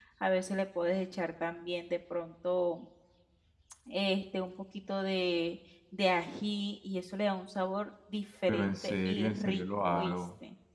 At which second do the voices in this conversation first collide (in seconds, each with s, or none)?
8.5 s